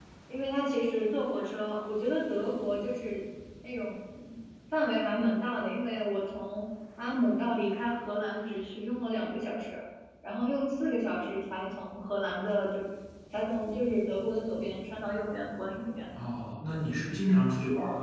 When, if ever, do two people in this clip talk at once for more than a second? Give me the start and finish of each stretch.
none

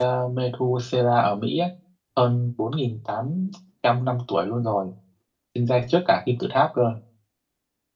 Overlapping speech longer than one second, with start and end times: none

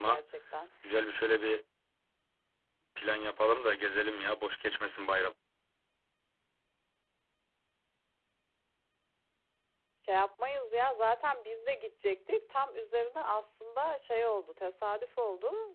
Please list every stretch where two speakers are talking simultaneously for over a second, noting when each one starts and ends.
none

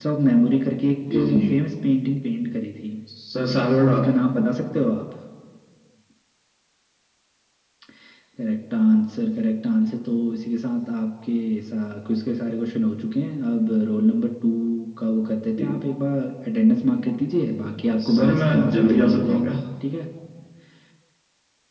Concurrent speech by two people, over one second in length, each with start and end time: 18.0-19.6

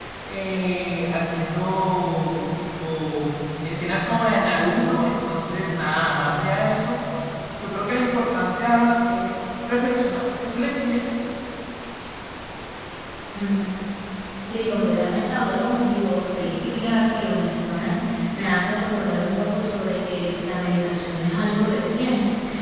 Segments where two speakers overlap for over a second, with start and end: none

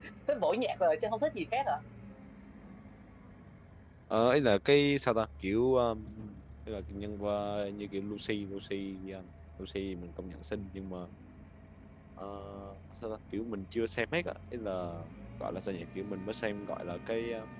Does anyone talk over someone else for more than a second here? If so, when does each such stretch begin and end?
none

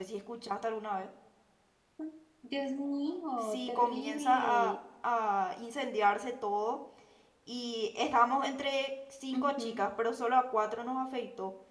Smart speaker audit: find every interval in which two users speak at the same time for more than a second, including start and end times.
3.4-4.7

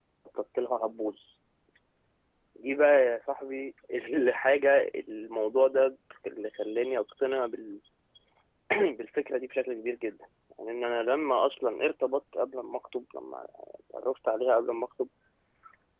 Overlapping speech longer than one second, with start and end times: none

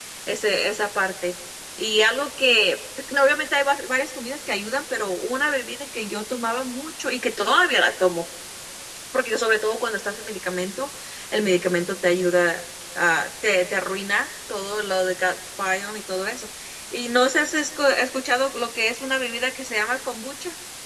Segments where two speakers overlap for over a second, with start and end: none

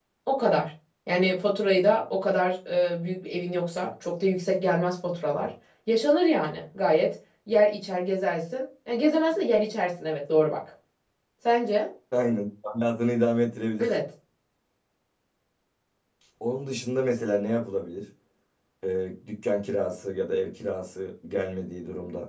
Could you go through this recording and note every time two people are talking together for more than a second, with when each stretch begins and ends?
none

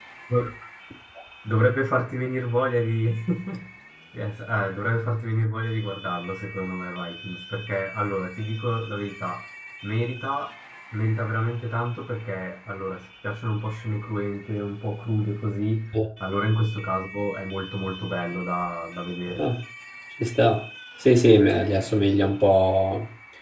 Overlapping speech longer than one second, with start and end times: none

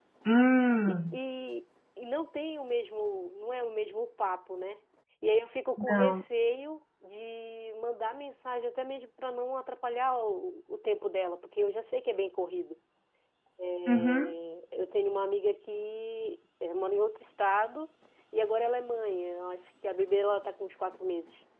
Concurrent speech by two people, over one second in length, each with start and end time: none

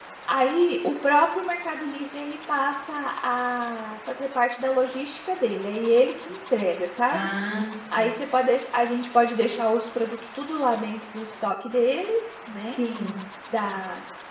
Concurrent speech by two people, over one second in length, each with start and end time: none

